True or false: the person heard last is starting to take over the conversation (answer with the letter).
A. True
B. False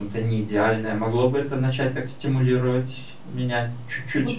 A